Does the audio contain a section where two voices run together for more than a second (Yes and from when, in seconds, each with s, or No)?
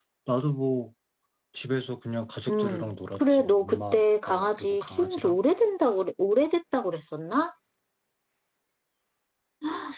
Yes, from 2.5 s